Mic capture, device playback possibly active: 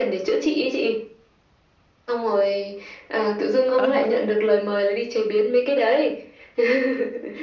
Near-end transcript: Ờ.

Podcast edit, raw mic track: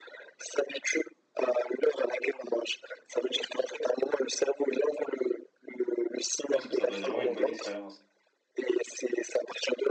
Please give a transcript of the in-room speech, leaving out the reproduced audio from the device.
Je pense que ça doit être vraiment une bonne expérience.

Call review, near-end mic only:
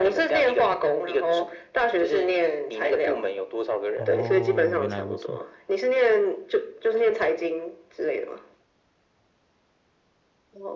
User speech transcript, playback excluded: 哦，原来如此。

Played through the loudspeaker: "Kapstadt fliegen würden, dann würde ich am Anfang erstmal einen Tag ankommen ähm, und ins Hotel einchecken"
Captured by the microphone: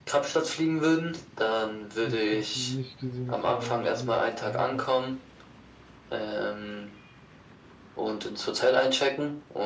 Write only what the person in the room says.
Also ich habe nicht gesehen, dass man irgendwie anders dahin kommt.

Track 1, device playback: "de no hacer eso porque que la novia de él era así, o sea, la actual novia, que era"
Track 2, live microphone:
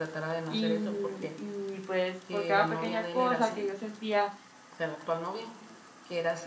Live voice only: Y, y pues por cada pequeña cosa que yo sentía

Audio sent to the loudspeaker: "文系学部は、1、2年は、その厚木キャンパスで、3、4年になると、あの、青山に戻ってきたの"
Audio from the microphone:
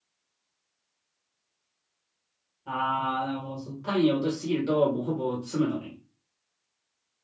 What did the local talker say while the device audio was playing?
ああ、もうそう単位を落としすぎると、もうほぼ詰むのね。

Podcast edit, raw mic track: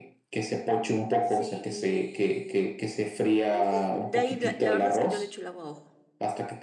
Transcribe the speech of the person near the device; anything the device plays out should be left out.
Sí, y bueno, sí, de ahí la, la verdad es que yo le echo el agua a ojo.

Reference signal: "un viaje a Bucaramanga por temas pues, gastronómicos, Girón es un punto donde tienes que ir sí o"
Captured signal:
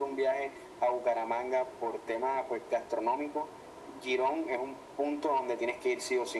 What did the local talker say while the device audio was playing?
none

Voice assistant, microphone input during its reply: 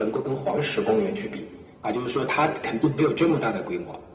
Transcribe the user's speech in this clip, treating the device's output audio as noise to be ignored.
none

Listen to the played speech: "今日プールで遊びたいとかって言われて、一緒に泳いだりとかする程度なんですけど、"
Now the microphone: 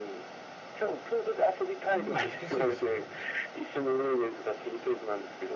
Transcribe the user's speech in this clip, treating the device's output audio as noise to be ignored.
噛むの難しいですよね。

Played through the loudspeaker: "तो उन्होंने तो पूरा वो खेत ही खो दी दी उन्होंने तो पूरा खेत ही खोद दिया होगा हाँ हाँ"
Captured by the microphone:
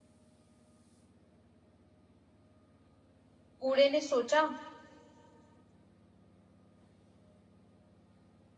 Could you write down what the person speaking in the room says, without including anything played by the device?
बूढ़े ने सोचा

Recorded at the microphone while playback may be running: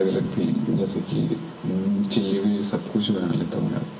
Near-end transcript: none

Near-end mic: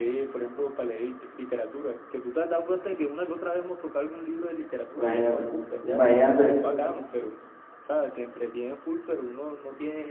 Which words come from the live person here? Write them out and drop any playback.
Imagínate, imagínate,

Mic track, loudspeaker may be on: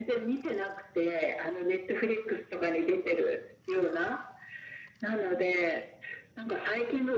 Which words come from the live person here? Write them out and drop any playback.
none

